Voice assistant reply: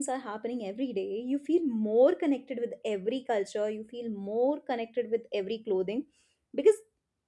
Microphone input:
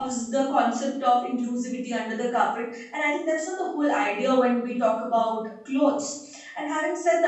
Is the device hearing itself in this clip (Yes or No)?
No